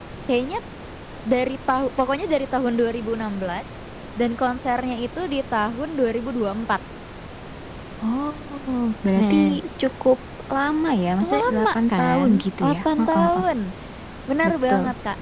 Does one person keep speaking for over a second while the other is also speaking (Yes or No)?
Yes